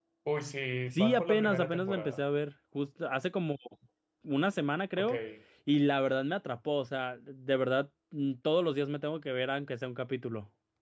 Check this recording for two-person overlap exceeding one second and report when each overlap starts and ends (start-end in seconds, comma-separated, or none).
0.9-2.2